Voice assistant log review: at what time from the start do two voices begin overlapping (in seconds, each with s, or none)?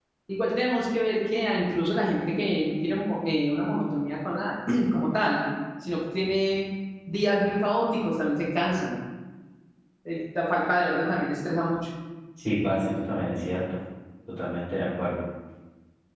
none